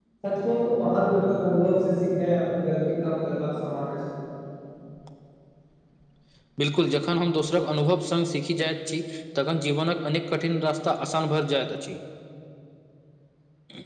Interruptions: none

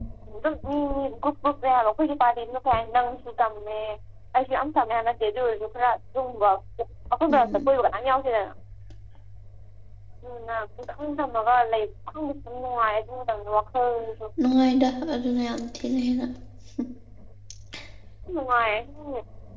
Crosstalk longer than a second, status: none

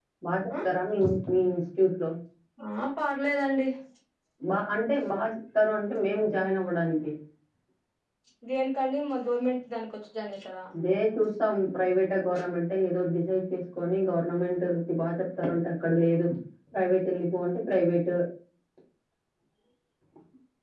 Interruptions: none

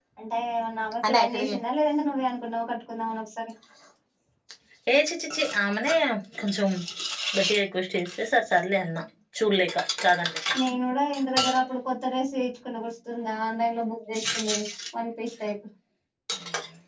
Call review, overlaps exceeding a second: none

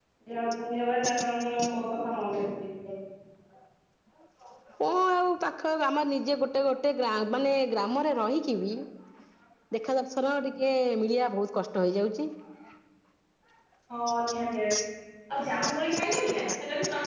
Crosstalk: none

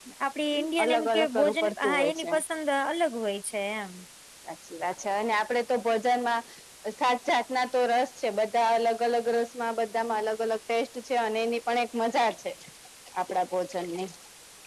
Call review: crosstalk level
present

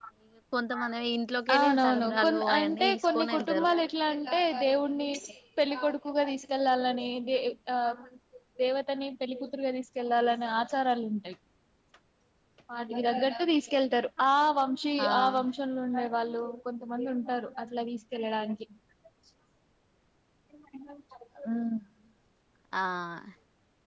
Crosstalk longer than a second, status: present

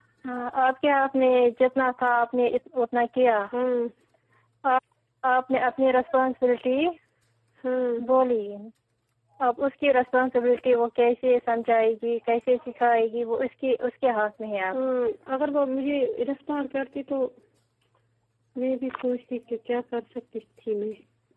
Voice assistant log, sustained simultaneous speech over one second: none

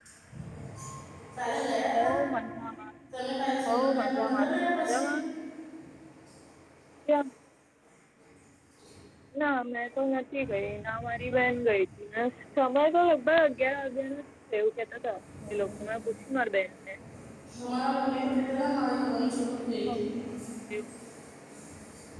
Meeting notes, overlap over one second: present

